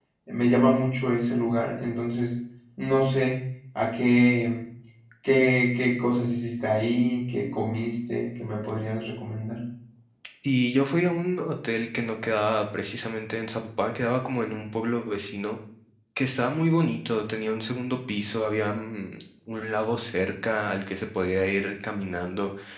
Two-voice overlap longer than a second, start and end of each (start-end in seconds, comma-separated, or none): none